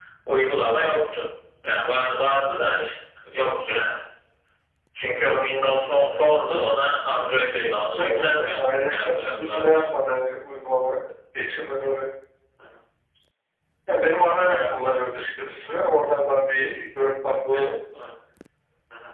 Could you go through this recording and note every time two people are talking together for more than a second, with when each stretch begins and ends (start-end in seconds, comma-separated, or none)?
8.0-9.8